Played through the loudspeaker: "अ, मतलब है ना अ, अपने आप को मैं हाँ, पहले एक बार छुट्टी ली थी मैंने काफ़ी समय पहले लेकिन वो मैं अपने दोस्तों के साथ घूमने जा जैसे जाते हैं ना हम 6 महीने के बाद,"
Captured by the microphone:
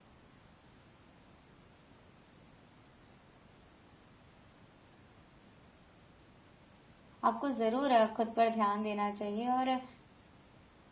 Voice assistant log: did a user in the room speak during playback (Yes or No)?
Yes